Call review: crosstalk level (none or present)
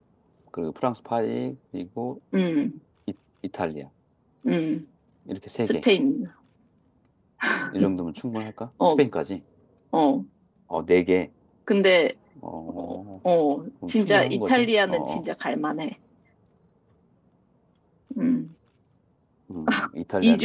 present